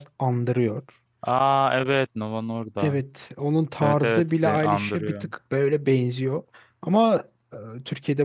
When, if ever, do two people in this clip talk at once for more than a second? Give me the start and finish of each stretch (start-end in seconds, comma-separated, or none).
3.8-5.1